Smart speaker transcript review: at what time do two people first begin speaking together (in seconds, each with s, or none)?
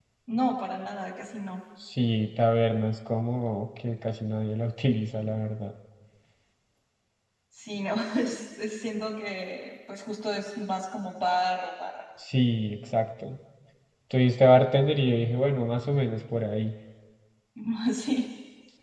none